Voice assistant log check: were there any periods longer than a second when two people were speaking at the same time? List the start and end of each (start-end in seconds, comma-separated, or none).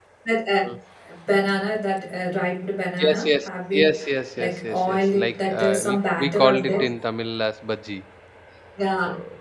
4.4-6.8